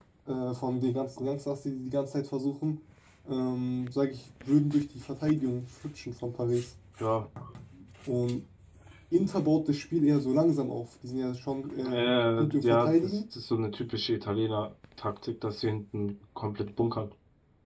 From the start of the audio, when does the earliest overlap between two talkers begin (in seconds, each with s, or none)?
11.8 s